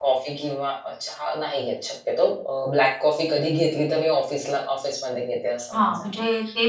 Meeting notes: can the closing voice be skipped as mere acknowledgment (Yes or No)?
No